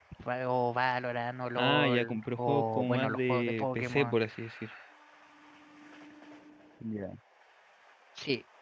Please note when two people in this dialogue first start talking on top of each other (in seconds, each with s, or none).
1.6 s